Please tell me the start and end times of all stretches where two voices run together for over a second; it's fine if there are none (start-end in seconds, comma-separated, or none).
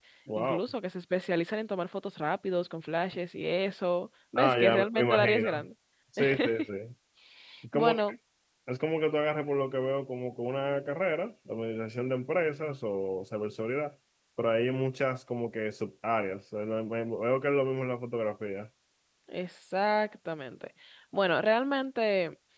4.4-5.6